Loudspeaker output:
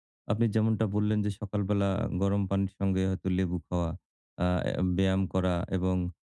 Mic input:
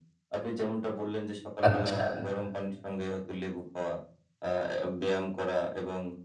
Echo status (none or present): present